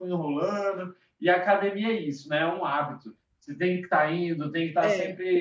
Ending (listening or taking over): listening